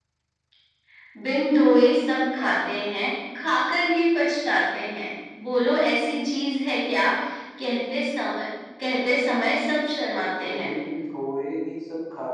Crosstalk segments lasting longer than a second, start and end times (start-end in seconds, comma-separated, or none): none